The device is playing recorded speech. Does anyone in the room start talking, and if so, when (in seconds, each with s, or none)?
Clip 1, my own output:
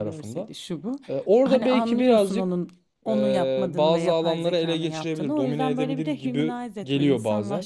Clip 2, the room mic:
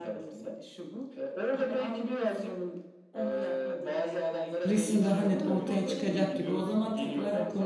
4.7 s